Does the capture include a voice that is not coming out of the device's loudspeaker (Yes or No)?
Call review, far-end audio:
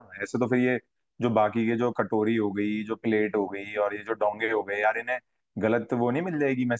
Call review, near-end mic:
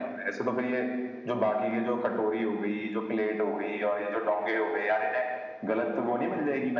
No